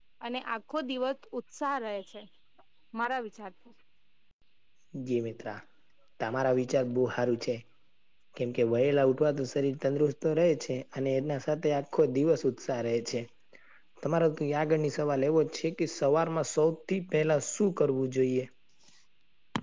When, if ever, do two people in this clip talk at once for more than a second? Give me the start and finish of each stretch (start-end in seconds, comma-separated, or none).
none